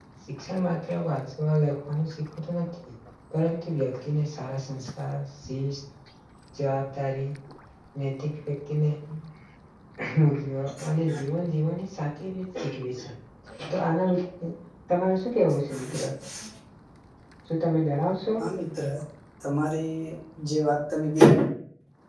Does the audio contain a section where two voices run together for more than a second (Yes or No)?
No